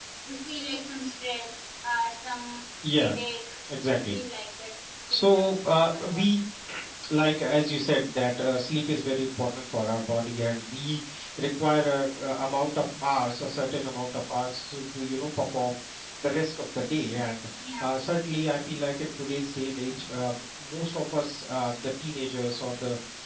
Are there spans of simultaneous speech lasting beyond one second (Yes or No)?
Yes